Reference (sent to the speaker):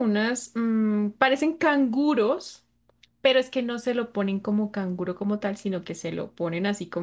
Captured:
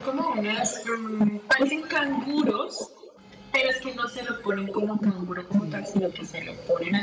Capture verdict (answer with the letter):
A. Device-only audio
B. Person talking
B